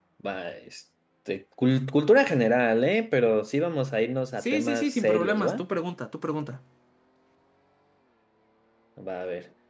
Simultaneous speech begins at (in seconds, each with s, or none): 4.4 s